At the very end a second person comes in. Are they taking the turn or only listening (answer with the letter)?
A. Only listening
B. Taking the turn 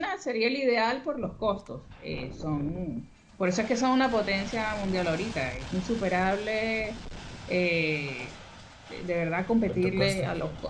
A